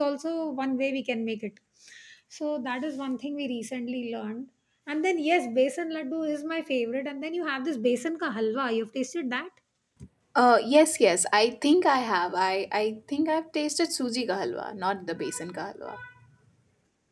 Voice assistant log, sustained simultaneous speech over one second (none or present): none